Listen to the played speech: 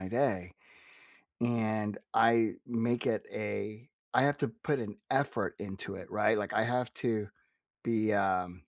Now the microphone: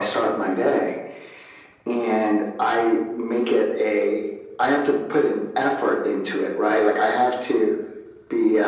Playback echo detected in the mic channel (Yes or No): Yes